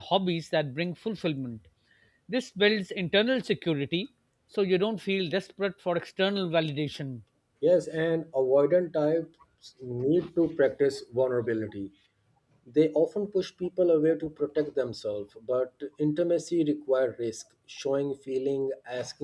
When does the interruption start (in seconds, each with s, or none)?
none